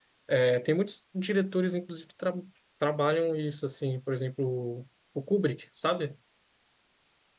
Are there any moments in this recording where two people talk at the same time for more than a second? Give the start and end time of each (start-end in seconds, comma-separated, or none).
none